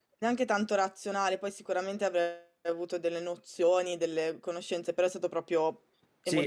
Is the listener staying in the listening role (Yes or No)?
No